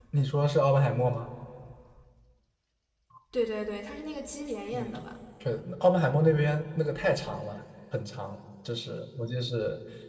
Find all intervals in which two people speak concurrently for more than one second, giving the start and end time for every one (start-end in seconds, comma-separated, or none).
none